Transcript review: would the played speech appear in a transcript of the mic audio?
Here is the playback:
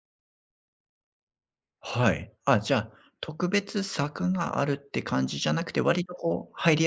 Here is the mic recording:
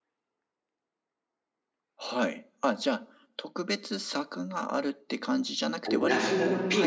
Yes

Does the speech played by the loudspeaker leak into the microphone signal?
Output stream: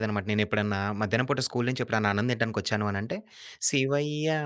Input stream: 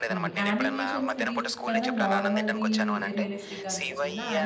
Yes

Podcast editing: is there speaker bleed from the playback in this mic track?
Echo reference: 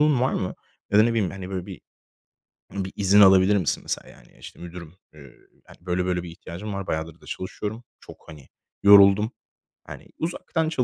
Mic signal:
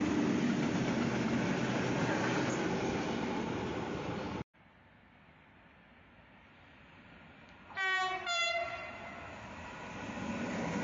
No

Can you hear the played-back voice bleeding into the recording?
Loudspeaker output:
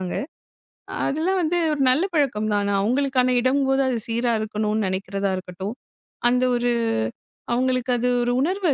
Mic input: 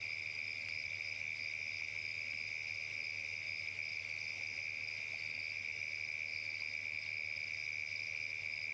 No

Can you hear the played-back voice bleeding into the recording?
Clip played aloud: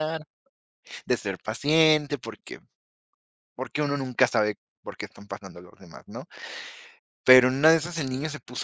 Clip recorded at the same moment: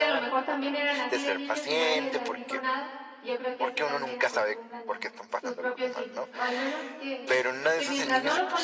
Yes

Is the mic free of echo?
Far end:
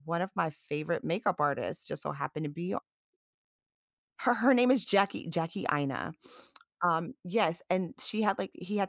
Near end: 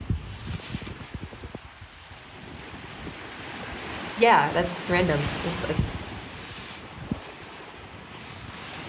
Yes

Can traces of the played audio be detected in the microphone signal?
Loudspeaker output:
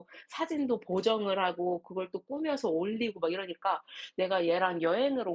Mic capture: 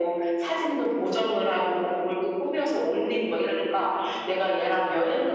Yes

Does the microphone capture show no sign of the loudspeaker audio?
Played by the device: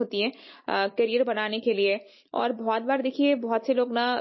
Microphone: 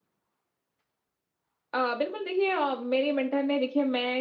Yes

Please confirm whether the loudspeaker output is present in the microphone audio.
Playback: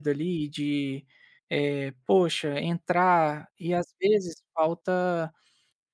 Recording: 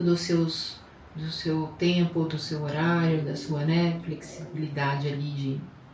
No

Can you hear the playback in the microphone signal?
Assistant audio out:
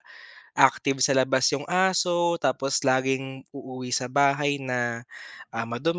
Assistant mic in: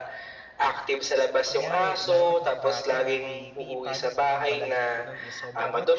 Yes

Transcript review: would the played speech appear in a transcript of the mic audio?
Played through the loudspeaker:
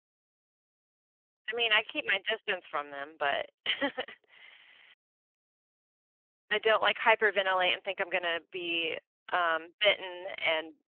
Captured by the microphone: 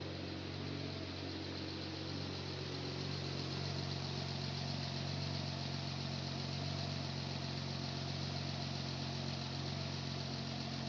No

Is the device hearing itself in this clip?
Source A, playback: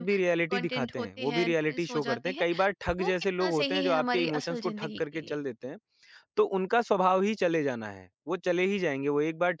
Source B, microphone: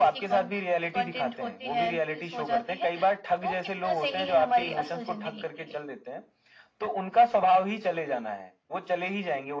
Yes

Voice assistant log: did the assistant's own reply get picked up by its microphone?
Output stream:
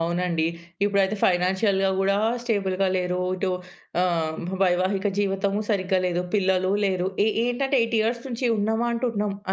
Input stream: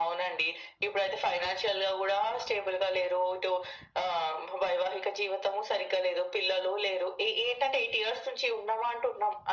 Yes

